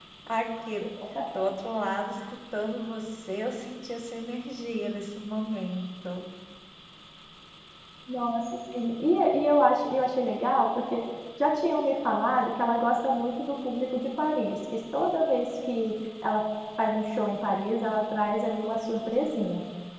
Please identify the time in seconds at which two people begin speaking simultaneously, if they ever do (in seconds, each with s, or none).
none